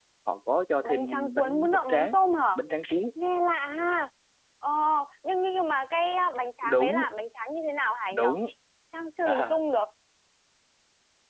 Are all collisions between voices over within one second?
No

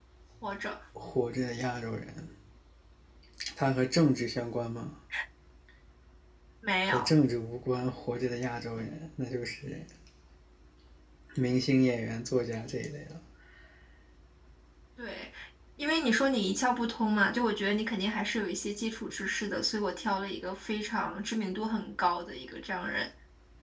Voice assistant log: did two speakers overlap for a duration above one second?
No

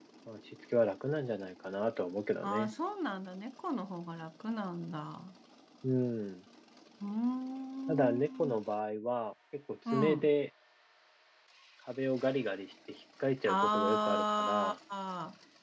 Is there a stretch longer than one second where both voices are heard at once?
Yes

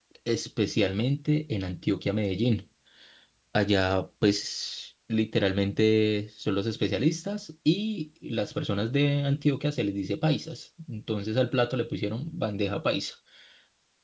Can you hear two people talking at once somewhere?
No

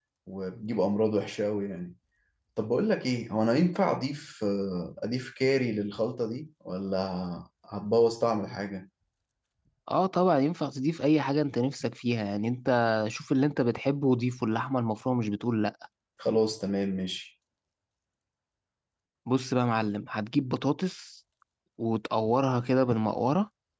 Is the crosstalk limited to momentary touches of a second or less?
Yes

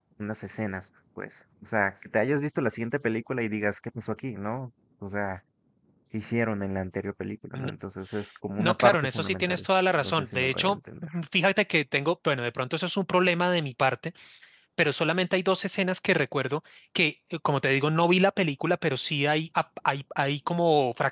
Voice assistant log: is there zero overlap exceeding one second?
No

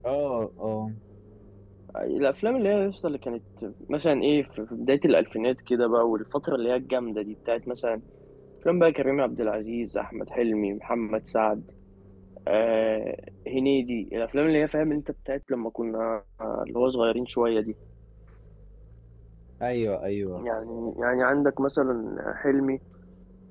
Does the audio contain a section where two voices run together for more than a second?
No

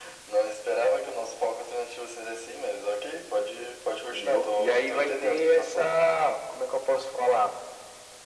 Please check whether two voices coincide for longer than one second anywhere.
Yes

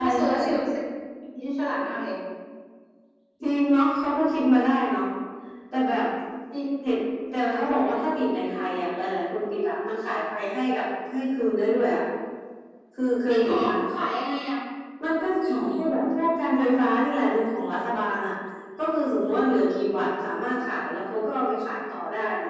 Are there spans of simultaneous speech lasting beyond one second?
No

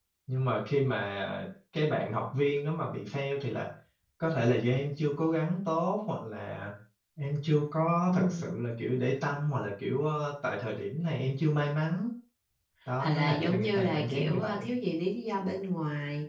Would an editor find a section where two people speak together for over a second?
Yes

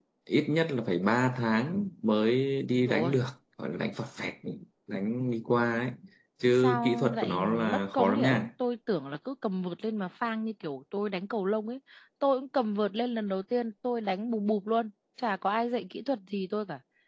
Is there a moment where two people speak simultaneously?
Yes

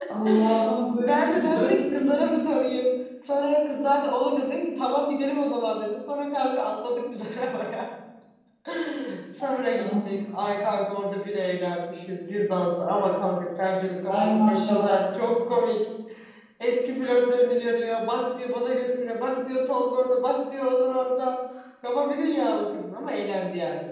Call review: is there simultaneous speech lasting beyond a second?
Yes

